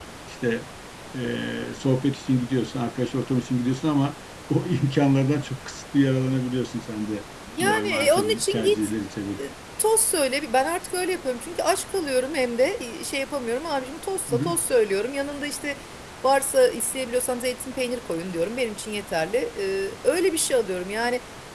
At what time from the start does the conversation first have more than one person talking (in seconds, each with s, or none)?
7.6 s